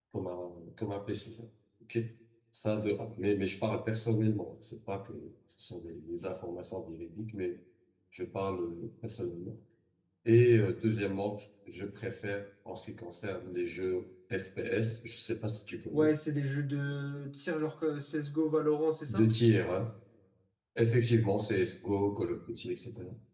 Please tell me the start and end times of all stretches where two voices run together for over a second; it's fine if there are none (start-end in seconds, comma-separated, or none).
none